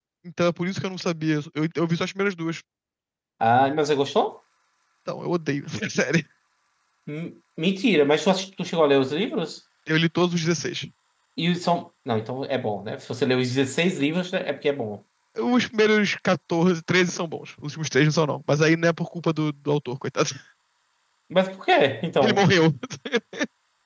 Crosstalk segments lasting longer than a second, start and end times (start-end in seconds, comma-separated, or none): none